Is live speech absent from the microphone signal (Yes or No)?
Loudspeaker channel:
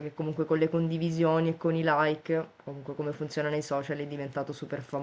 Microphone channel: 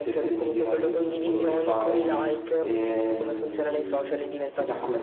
No